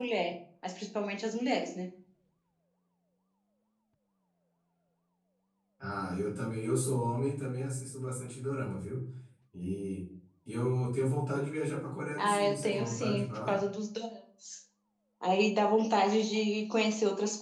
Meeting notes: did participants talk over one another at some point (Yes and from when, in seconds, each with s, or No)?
Yes, from 12.2 s